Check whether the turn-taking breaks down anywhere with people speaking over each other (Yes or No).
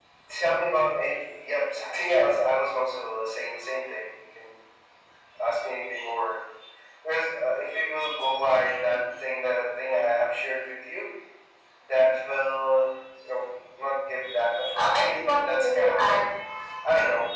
Yes